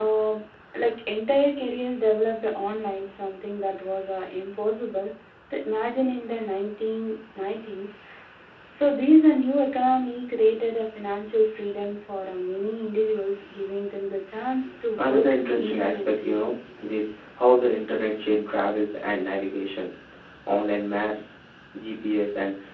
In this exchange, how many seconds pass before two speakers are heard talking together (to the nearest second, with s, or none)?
15 s